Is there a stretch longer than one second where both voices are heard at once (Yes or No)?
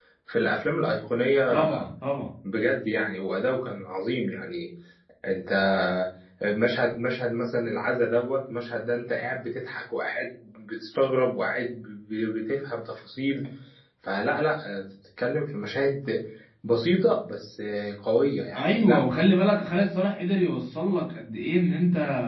No